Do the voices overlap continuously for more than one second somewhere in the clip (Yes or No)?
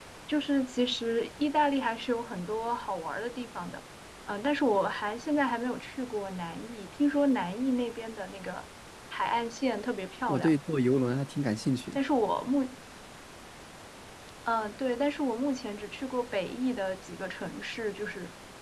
No